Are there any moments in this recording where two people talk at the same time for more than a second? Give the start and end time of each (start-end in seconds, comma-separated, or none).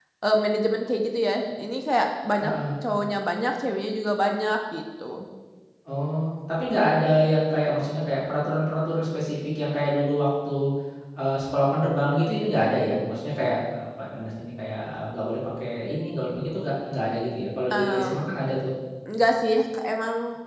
none